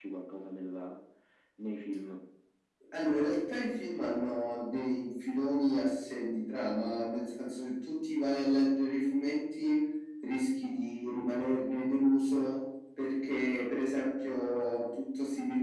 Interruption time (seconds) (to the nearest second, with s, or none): none